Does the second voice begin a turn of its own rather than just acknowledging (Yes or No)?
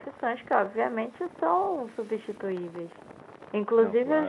No